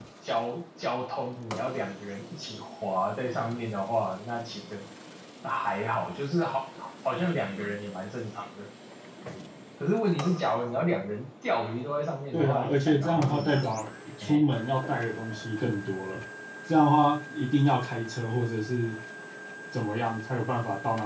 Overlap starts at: 12.3 s

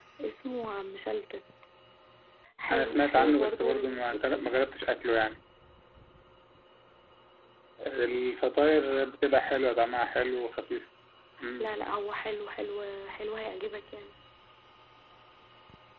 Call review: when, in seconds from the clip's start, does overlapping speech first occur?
2.7 s

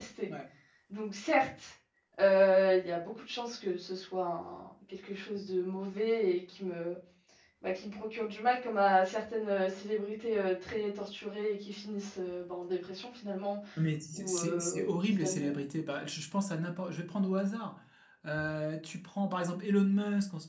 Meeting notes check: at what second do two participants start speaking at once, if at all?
14.1 s

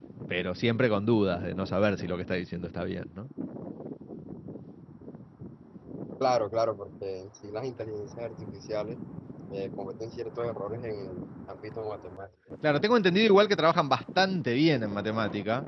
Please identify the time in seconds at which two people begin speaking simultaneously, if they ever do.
none

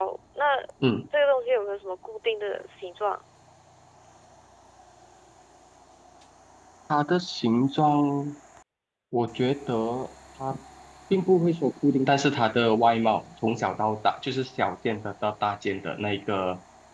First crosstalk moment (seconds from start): none

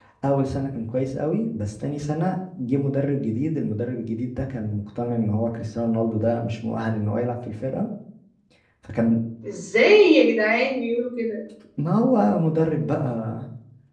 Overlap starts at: none

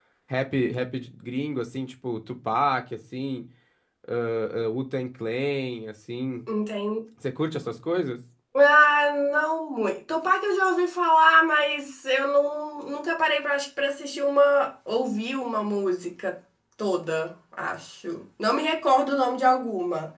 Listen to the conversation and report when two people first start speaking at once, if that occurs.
none

